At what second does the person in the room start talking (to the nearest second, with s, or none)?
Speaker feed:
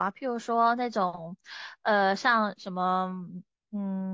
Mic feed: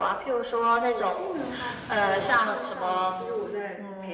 1 s